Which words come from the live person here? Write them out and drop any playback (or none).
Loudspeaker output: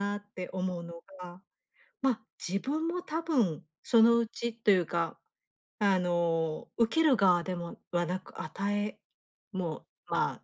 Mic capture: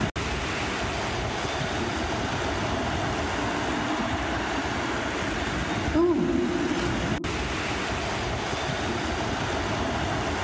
うん。